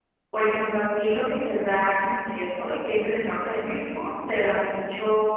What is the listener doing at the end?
listening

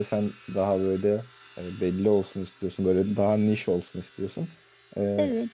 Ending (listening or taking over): listening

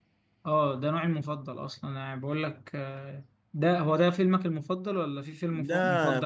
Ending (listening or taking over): taking over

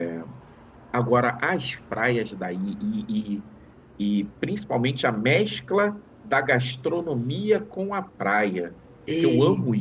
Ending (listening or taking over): listening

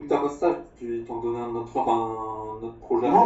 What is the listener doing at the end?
taking over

